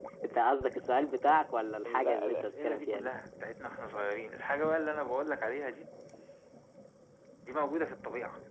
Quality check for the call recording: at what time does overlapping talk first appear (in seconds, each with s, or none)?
1.9 s